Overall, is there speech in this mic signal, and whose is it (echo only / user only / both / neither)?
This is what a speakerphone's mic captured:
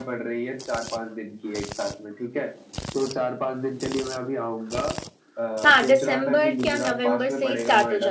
both